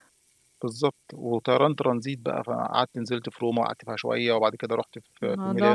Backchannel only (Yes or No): No